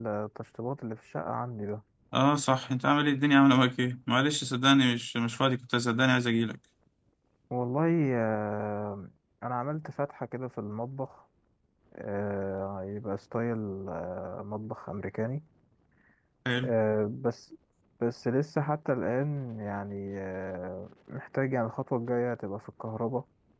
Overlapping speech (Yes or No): No